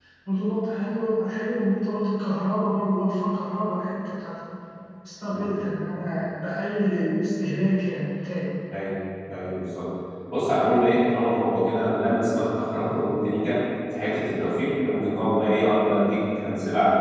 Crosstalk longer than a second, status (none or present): none